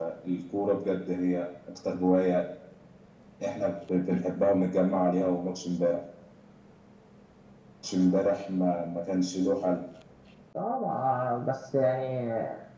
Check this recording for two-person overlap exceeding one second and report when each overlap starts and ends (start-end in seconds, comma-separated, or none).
none